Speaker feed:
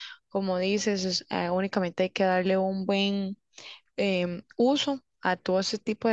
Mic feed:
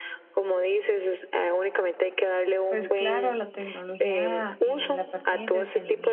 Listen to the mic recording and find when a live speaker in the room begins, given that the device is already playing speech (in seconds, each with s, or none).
2.6 s